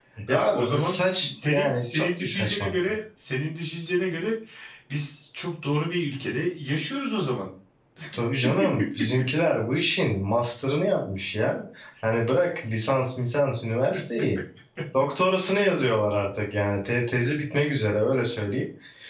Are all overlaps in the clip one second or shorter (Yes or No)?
No